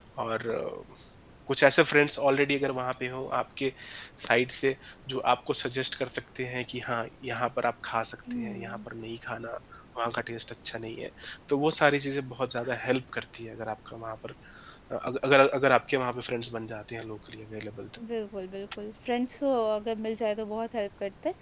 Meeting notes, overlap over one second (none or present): none